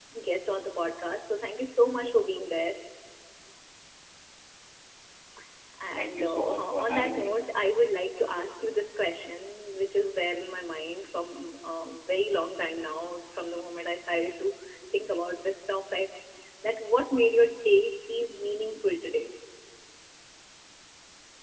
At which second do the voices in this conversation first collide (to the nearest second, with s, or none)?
6 s